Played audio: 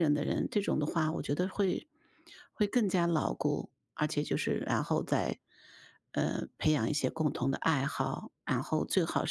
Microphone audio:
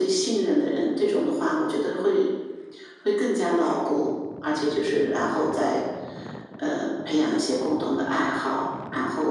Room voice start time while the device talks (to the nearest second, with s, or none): none